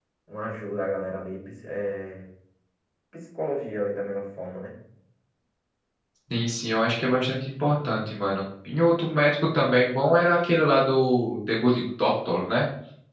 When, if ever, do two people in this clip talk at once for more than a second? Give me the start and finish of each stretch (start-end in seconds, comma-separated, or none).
none